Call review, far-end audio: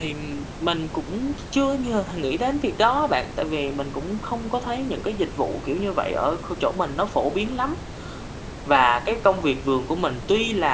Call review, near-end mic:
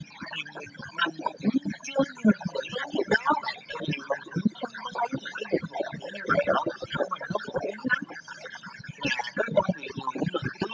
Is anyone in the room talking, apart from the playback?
No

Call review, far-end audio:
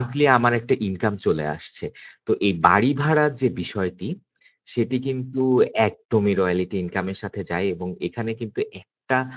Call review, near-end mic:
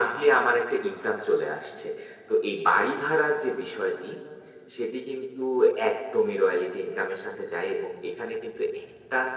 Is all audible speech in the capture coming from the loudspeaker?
Yes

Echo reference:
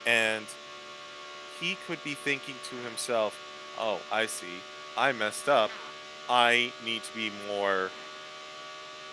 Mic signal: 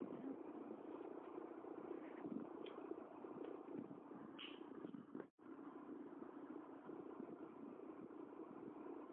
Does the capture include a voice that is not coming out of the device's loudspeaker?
No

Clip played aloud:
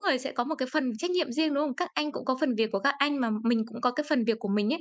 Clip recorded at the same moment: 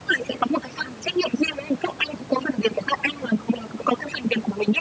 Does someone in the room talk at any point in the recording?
No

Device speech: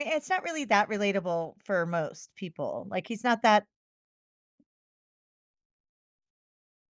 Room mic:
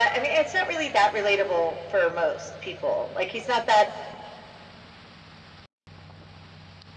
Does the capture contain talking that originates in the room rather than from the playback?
No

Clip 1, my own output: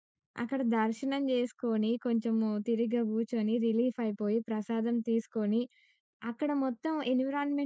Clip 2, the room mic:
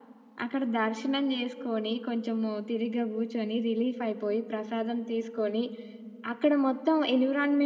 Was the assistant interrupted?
No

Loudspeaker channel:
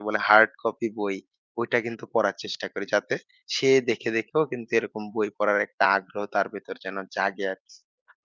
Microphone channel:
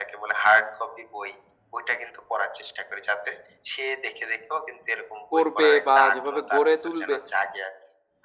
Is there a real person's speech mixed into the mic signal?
Yes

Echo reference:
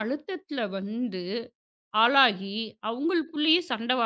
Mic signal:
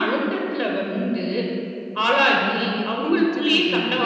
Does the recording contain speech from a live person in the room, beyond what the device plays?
Yes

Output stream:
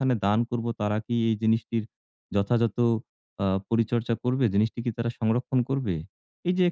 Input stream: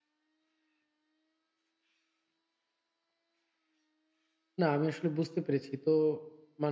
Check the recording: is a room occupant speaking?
Yes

